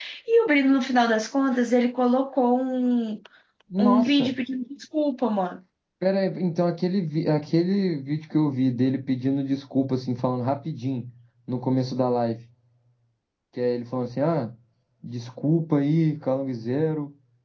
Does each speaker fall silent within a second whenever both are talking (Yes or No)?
Yes